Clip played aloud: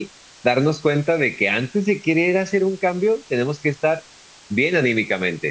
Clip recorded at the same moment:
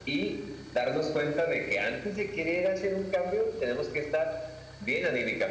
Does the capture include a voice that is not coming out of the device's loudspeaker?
No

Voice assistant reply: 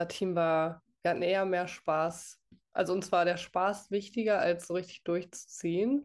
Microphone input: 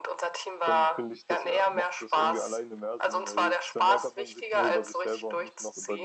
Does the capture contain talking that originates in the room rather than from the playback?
Yes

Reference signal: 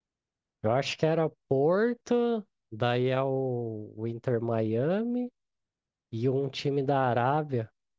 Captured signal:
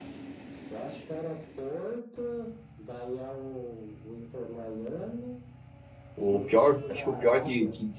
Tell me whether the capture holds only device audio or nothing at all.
No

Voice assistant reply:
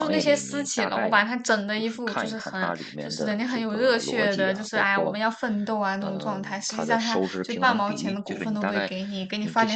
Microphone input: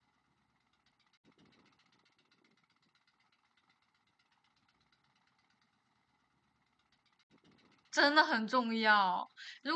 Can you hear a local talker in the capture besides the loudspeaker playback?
Yes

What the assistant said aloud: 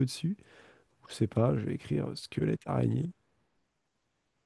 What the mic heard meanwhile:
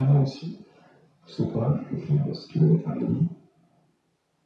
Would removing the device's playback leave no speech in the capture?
Yes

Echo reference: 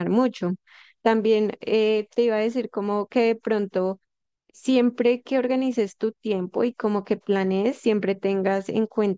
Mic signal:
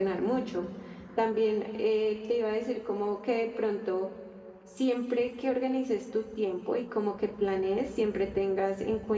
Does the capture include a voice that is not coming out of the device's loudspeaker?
No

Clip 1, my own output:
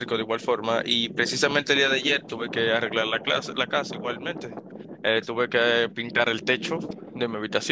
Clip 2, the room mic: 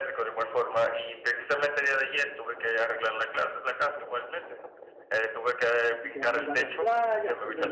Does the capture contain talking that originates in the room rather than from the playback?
Yes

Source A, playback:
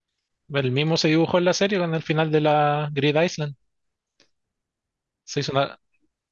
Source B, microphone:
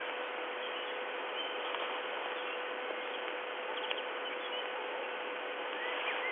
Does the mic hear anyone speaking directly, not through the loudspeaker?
No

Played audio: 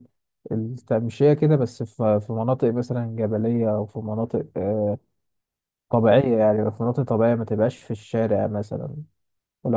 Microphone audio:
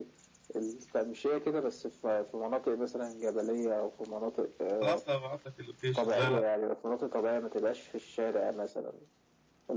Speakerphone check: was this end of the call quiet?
No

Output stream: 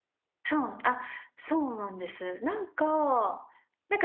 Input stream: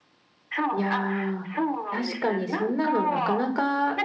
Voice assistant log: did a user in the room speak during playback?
Yes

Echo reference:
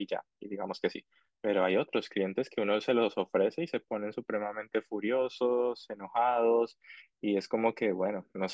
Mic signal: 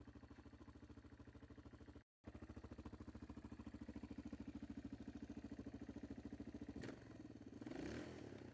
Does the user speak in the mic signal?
No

